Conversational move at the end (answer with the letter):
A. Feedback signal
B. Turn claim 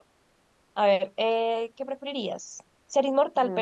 A